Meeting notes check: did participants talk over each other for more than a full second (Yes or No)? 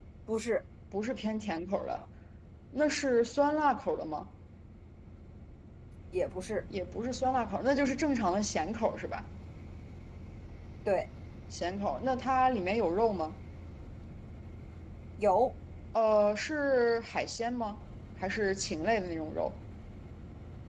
No